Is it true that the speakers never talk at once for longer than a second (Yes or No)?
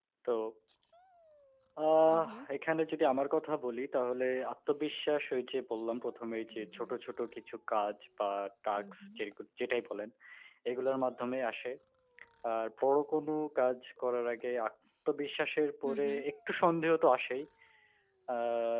Yes